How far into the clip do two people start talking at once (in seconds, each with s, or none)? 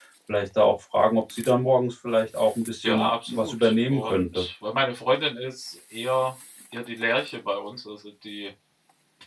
2.8 s